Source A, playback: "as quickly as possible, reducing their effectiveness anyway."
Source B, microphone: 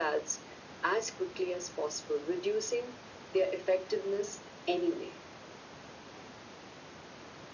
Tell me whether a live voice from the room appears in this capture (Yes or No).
No